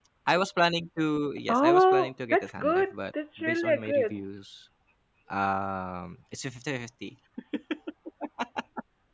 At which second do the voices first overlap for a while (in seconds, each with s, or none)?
1.5 s